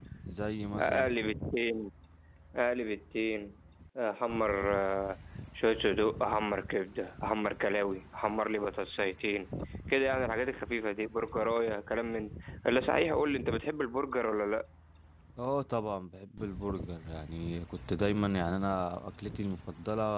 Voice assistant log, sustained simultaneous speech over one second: none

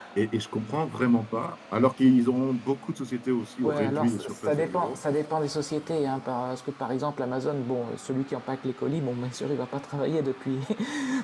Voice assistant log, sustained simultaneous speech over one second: present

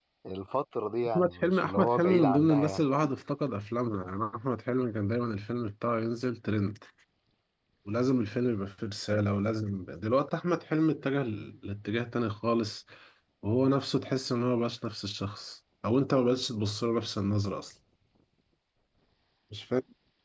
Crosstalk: present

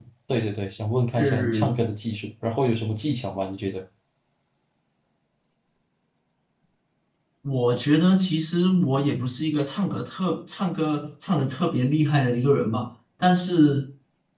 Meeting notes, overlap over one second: none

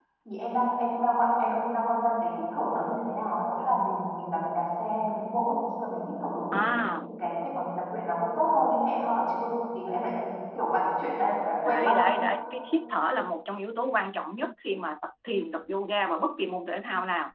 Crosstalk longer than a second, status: none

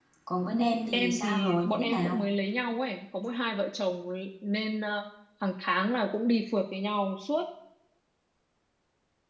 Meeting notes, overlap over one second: present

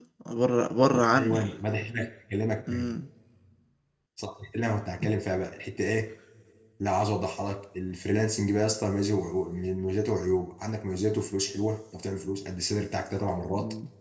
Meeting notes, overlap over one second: none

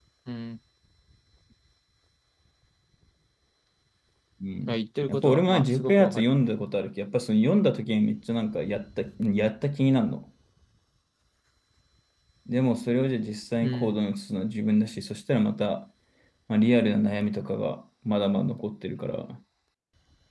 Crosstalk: present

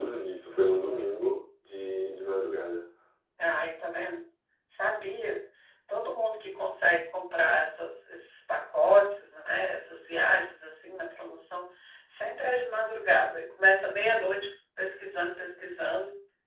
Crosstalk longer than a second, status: none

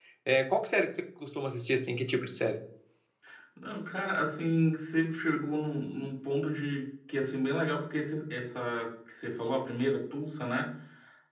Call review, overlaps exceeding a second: none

